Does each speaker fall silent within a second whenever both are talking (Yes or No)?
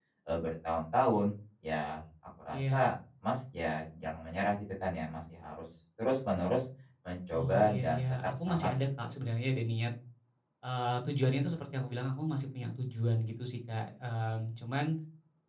No